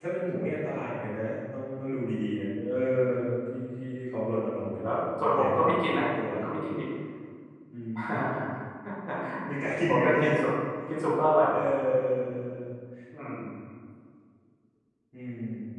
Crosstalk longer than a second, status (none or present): present